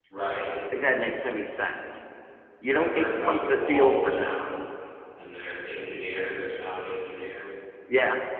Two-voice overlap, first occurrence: 2.7 s

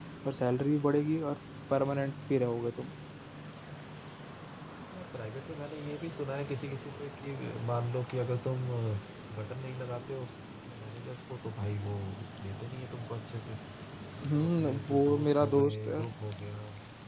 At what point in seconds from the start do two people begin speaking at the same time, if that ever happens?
14.2 s

